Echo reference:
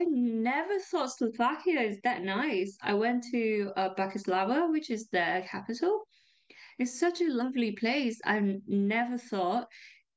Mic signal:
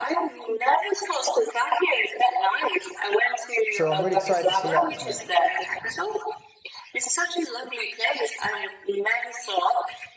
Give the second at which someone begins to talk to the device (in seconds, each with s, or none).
3.7 s